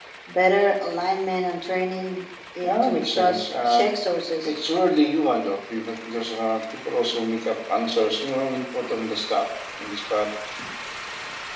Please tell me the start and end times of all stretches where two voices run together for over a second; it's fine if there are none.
2.6-3.8

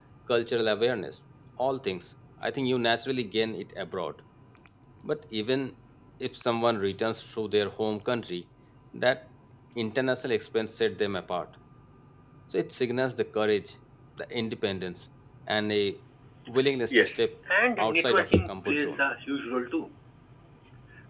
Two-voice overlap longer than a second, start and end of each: 17.8-19.0

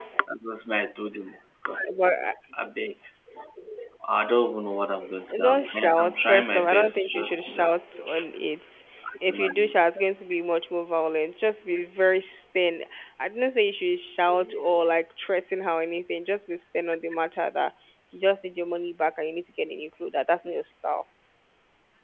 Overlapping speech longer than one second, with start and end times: 5.4-7.7

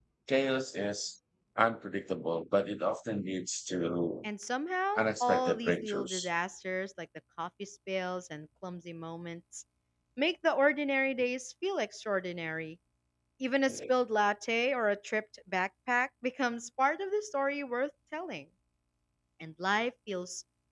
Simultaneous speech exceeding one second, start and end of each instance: 5.0-6.3

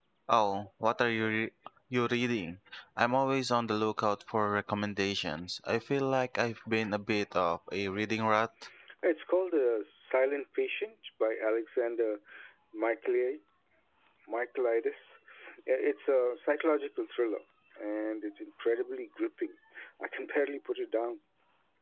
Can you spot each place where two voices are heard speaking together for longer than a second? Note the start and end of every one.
none

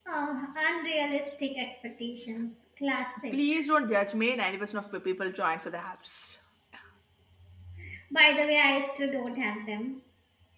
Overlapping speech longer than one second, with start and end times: none

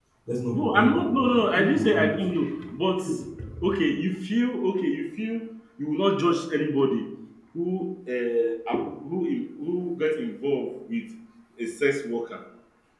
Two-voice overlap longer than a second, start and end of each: 0.6-2.1

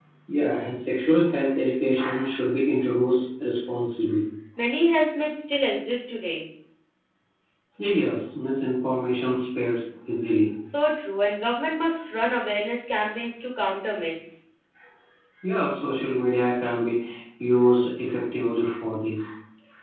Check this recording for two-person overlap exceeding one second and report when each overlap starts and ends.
none

